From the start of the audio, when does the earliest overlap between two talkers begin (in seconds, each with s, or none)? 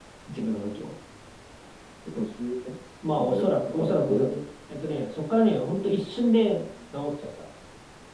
3.2 s